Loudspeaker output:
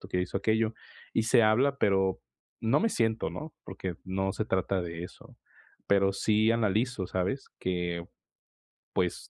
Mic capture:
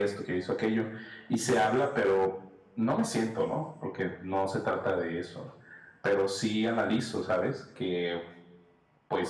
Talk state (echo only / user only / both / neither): echo only